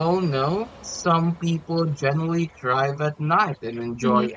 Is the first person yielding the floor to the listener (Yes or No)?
No